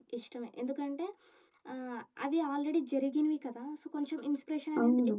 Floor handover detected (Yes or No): No